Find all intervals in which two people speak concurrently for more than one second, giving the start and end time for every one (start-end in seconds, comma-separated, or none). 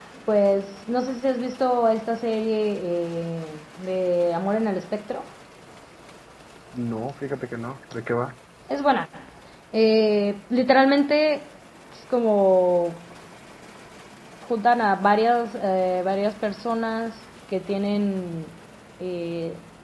none